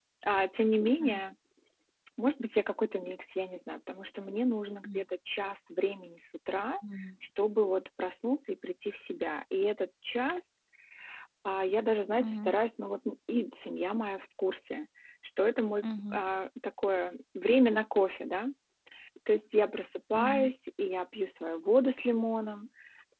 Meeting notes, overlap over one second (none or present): none